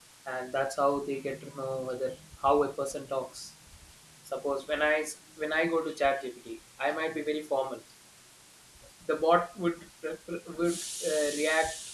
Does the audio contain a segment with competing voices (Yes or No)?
No